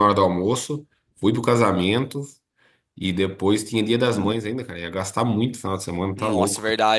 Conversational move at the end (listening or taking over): taking over